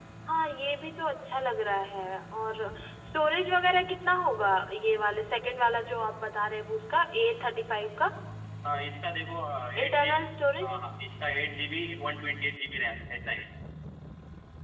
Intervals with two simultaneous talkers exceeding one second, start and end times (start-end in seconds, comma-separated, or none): none